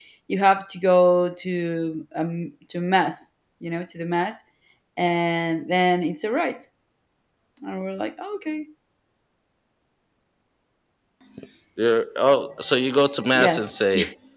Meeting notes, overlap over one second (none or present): none